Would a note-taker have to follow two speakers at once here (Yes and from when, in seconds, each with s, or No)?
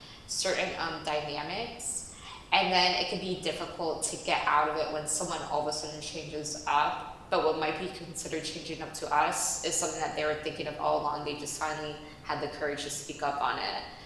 No